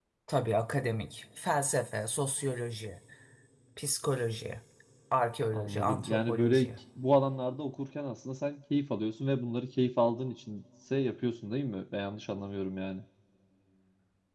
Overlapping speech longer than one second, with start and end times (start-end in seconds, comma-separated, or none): 5.5-6.8